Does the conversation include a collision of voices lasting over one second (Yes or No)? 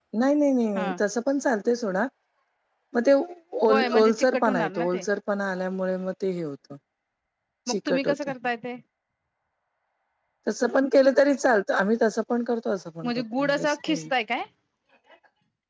Yes